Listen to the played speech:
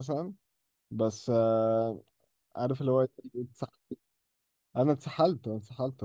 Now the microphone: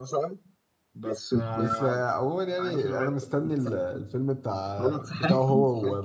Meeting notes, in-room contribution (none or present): present